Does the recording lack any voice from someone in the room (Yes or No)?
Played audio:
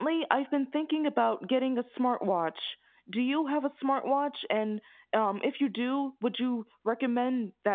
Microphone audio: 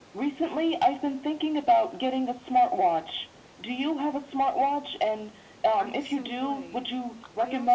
No